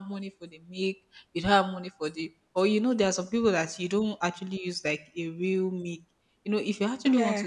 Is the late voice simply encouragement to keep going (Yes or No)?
Yes